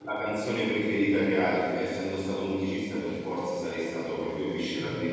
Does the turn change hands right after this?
No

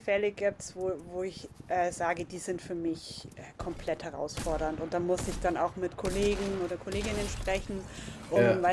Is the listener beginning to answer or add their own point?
No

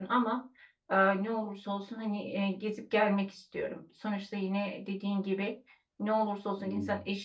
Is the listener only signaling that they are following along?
Yes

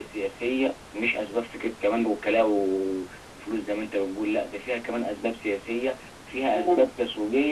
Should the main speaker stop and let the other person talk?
No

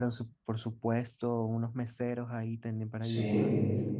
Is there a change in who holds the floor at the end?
No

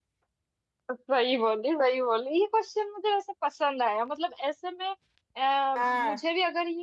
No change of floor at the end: Yes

